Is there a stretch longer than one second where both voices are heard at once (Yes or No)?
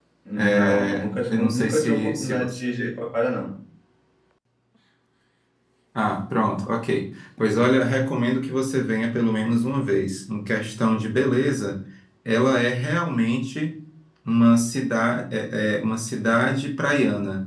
Yes